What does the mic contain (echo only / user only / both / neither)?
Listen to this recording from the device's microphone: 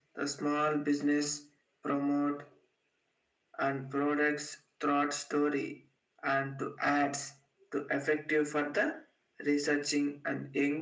echo only